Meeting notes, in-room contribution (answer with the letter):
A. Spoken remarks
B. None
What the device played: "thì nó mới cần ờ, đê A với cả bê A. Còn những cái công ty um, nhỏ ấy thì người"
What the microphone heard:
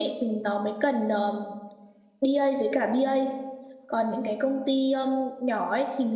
B